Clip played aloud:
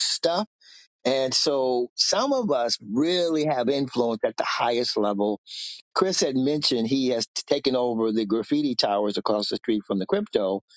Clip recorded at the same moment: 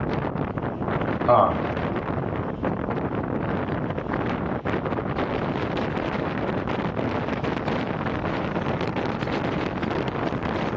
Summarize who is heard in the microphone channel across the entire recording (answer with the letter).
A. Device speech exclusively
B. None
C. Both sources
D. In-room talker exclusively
D